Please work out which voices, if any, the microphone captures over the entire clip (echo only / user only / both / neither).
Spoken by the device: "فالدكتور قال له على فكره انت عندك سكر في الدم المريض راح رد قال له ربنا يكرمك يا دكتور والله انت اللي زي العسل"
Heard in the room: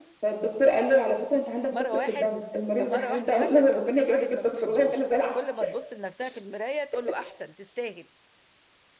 both